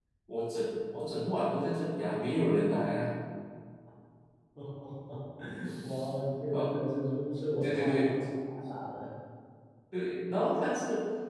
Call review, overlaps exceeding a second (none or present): none